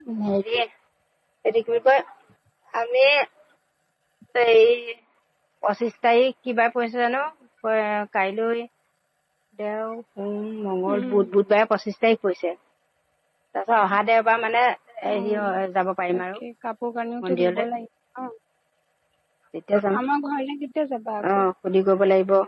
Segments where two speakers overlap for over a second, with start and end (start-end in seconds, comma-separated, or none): none